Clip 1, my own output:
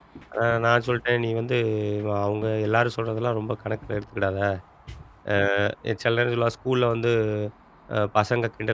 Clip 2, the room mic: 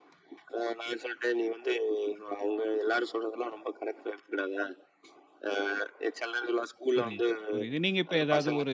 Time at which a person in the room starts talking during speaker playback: 6.9 s

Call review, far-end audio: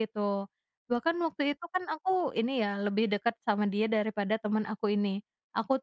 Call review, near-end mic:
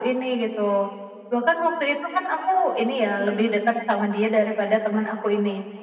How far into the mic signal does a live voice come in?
3.1 s

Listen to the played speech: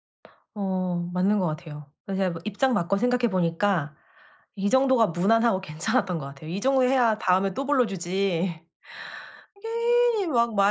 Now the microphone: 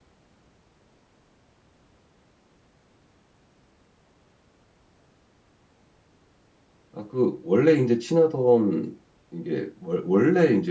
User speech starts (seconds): 6.9 s

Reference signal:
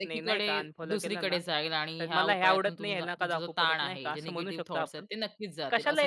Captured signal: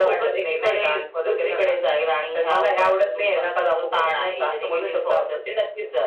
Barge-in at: none

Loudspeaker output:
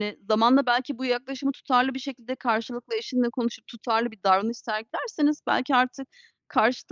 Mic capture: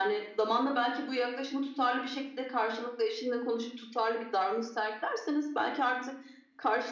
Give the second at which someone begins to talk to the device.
none

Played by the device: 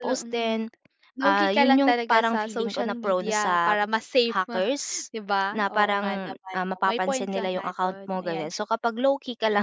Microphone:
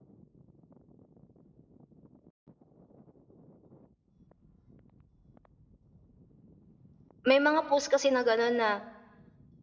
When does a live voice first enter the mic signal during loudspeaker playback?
7.2 s

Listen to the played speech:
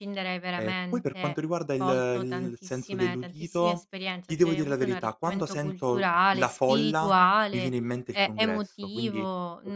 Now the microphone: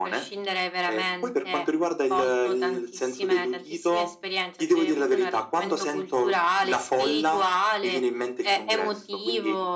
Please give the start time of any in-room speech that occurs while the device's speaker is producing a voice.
none

